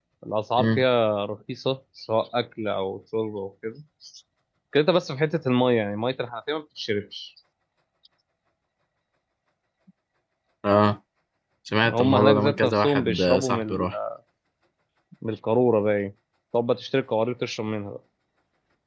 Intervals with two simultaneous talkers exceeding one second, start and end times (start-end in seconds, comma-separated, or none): 11.8-13.9